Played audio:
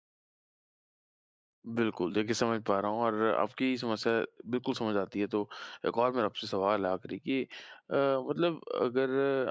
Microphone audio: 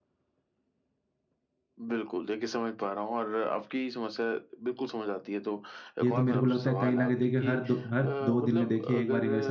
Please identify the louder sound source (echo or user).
user